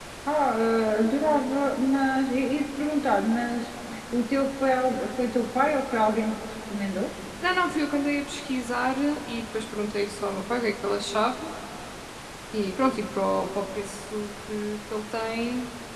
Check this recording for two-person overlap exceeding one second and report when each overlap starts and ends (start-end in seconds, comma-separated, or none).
none